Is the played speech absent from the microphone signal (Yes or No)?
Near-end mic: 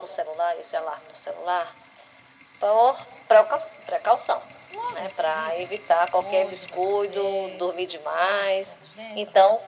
No